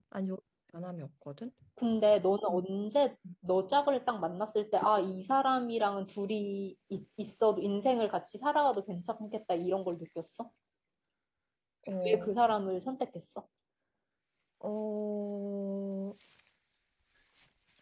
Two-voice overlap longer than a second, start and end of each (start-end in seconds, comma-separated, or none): none